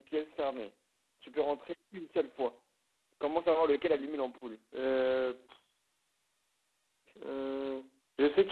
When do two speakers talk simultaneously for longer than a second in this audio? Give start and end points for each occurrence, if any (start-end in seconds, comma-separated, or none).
none